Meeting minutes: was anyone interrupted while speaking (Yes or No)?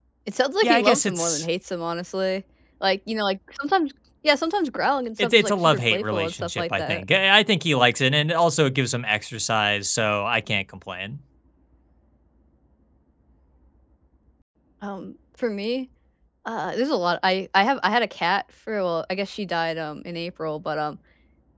Yes